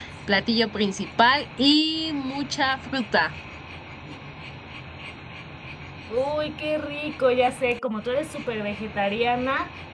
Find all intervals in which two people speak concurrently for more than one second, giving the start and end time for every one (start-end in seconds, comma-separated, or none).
none